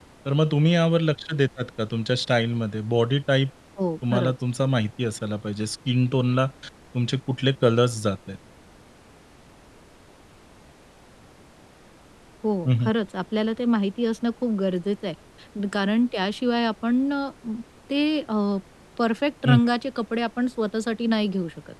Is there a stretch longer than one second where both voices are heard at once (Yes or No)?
No